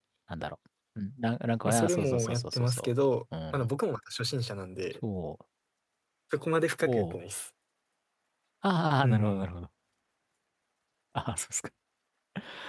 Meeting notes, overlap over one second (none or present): present